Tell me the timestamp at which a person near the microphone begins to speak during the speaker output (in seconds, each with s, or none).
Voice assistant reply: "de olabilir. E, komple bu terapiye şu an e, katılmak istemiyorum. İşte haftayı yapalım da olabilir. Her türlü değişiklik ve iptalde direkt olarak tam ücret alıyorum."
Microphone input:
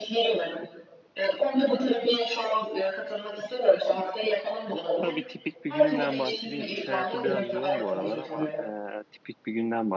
5.0 s